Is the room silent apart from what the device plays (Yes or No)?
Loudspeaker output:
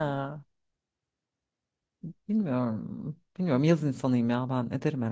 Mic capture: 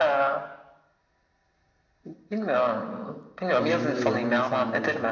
No